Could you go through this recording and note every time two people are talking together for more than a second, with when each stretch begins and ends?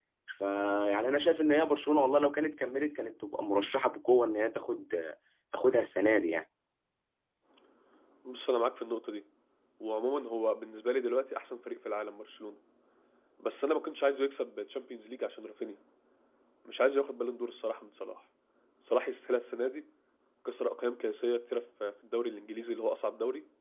none

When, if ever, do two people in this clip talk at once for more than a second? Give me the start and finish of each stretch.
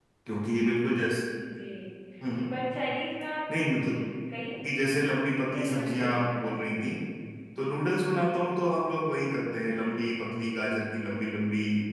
5.5-6.8

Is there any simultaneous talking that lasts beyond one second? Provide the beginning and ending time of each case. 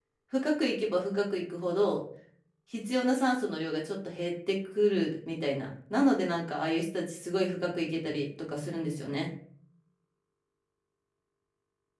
none

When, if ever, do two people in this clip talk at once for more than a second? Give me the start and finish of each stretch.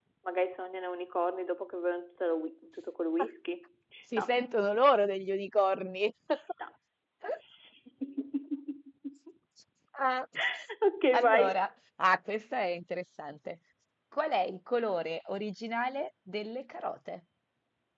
none

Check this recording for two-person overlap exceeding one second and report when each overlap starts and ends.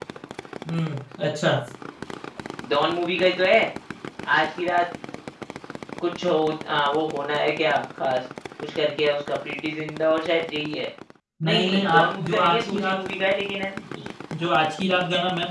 11.4-13.0

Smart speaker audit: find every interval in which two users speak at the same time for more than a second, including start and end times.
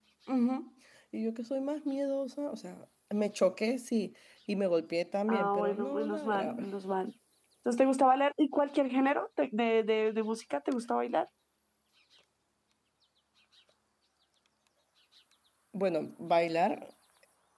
5.3-6.6

